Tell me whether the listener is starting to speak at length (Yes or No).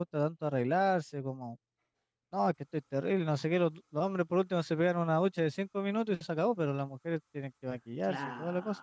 Yes